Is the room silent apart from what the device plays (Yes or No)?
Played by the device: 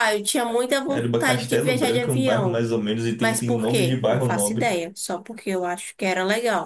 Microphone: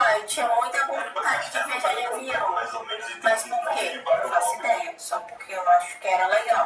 Yes